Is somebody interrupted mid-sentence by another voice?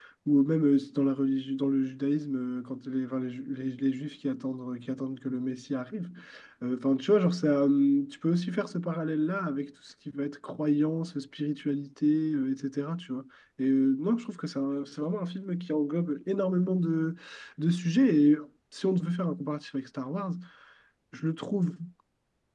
No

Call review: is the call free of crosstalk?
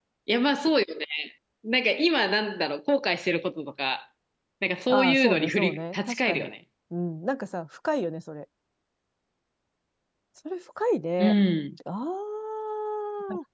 No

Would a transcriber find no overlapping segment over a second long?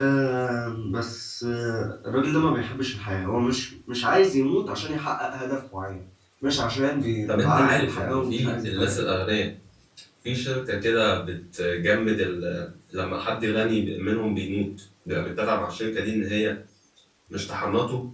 No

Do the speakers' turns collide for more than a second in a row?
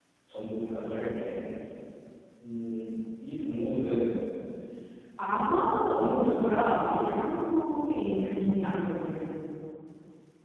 Yes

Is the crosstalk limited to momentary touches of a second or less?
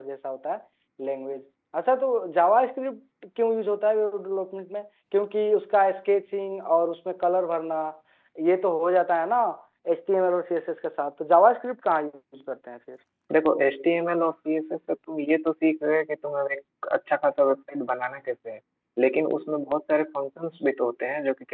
Yes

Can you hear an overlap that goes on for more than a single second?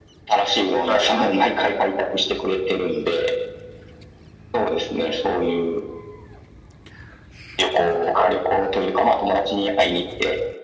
Yes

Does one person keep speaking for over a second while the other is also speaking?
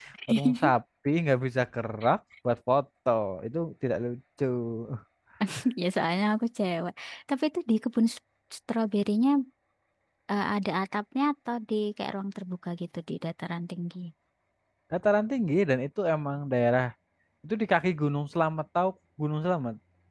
No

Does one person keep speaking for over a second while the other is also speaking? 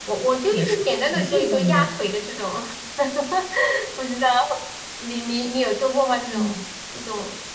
Yes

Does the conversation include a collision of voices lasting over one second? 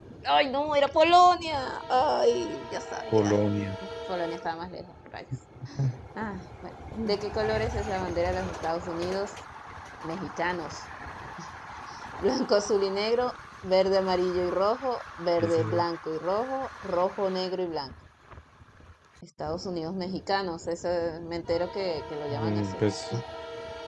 No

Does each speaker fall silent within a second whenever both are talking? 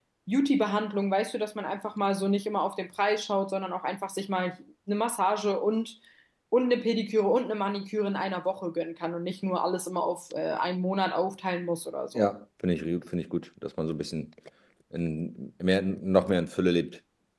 Yes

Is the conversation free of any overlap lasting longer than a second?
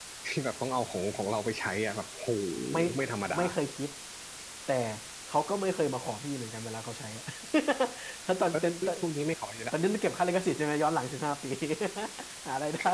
Yes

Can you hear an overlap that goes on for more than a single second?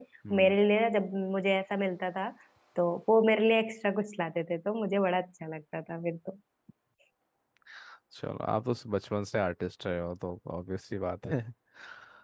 No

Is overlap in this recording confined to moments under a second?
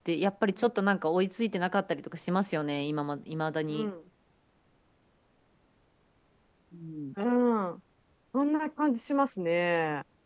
Yes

